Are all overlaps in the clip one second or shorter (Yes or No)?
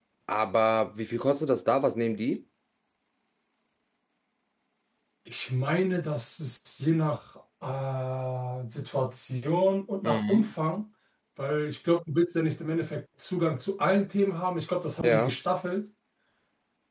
Yes